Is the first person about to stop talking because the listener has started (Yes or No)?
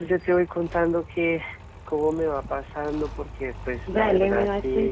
Yes